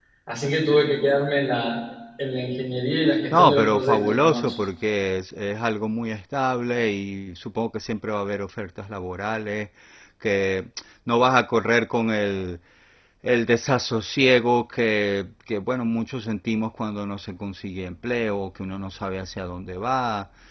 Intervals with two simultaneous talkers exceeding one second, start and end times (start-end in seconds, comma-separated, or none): 3.3-4.6